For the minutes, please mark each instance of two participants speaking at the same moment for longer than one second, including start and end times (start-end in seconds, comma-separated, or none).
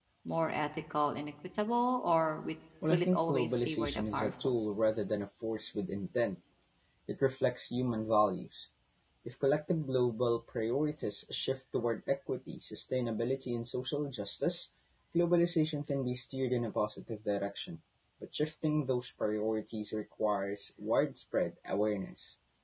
2.9-4.5